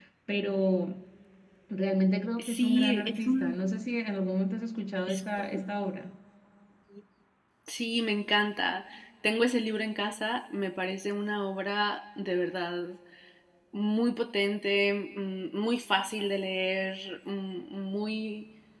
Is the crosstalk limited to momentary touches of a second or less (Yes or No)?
No